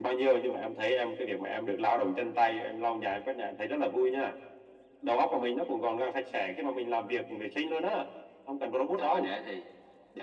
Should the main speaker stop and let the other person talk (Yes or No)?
Yes